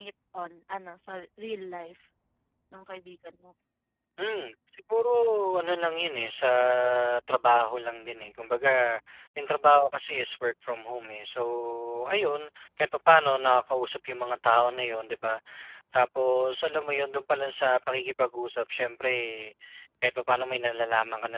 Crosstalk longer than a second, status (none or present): none